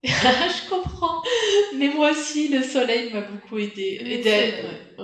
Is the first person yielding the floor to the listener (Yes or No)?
No